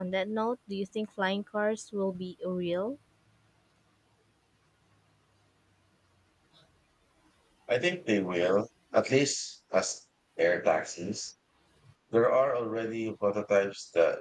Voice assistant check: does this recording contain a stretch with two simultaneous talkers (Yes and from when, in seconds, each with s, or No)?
No